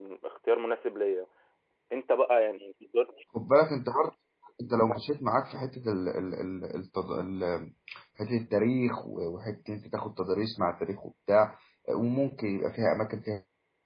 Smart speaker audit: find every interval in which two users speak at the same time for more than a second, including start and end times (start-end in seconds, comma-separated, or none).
none